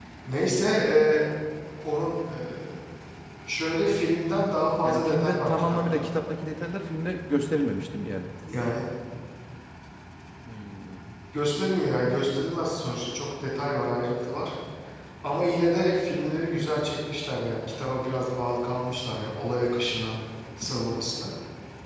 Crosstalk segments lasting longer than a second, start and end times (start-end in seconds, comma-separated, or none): 4.8-6.0